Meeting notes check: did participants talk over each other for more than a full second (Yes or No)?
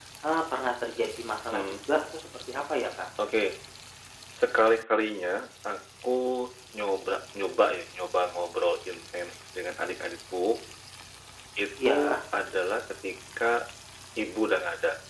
No